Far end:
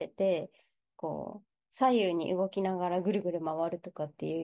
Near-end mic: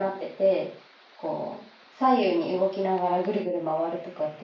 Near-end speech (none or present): none